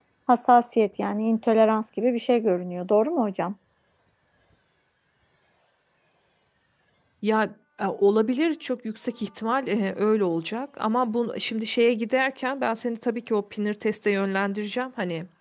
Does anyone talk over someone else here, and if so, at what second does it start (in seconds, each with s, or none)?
none